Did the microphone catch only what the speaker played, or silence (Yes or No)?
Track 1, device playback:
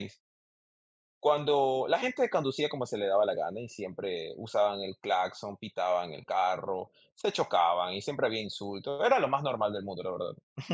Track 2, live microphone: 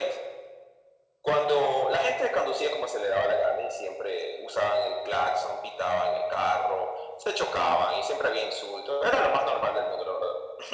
Yes